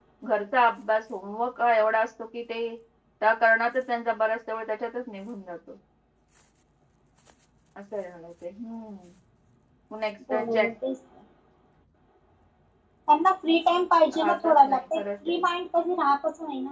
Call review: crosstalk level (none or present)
present